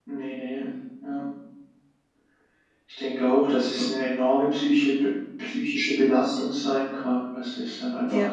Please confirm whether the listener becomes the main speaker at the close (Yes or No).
No